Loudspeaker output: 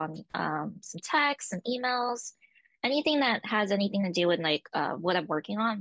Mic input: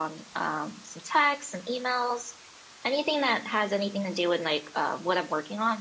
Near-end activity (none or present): none